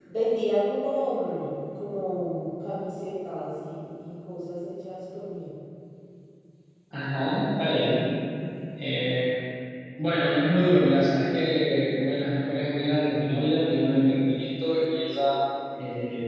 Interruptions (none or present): none